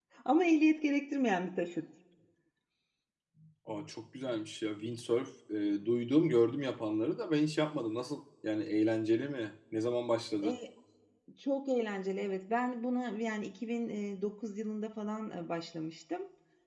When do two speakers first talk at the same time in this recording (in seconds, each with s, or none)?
none